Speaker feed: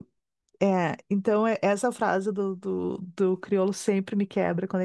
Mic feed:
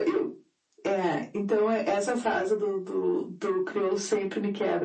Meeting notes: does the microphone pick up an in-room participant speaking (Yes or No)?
No